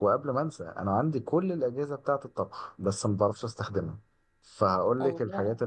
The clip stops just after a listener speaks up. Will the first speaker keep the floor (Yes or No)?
Yes